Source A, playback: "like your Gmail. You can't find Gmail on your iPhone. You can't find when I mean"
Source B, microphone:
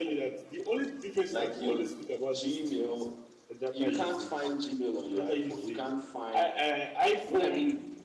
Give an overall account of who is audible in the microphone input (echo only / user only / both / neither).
both